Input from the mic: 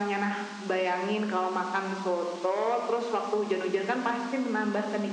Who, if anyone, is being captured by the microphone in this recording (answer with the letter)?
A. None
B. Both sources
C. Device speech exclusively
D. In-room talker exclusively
C